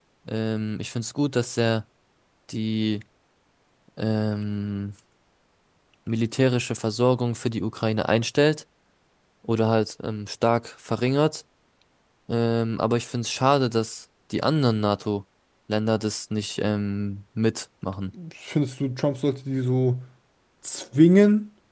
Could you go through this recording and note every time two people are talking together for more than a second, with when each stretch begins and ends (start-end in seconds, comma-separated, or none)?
none